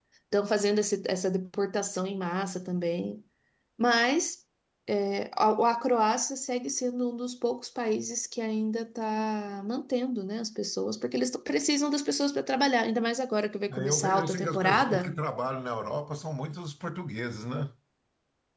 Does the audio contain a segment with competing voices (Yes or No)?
Yes